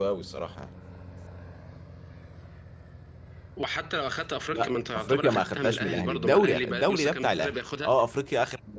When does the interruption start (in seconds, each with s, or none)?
4.5 s